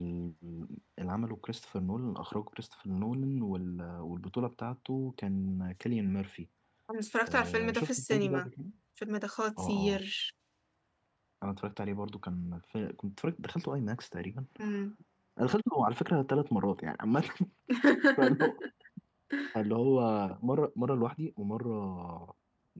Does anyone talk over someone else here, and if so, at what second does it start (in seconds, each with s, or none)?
7.3 s